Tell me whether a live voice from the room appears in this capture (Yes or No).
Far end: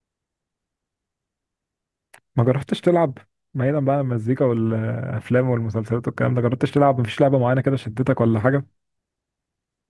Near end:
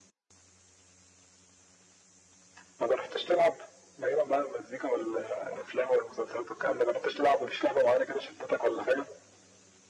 No